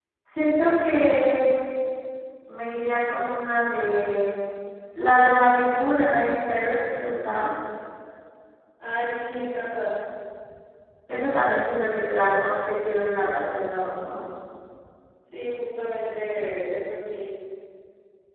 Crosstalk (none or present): none